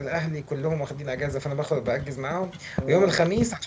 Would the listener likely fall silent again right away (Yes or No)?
Yes